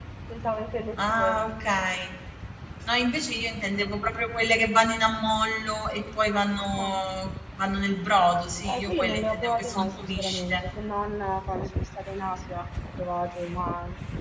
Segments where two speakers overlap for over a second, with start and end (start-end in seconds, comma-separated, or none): 8.7-10.6